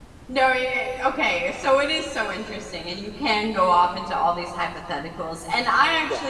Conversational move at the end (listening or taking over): listening